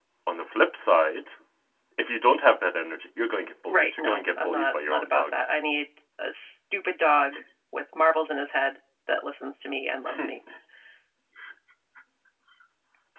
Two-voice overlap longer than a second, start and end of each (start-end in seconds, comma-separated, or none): 3.7-5.2